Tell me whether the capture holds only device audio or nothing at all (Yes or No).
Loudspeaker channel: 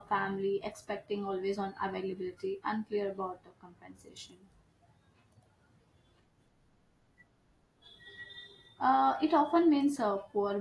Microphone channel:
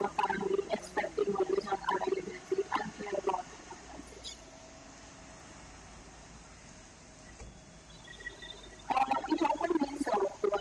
Yes